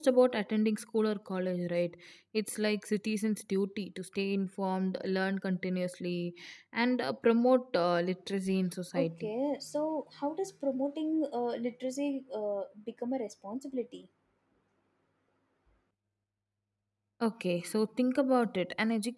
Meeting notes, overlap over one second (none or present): none